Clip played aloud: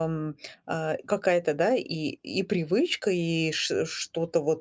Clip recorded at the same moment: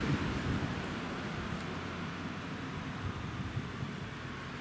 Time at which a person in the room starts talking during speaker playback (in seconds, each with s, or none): none